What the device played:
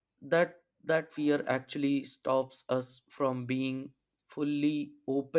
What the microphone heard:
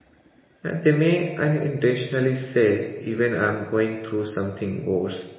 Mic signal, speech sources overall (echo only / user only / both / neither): user only